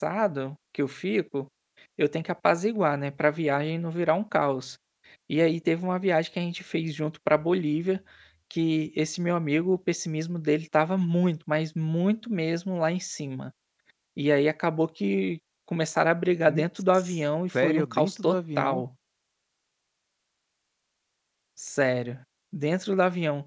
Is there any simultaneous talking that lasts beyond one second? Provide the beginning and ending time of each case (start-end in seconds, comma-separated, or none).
17.5-18.8